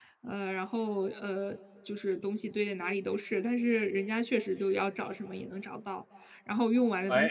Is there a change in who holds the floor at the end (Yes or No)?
No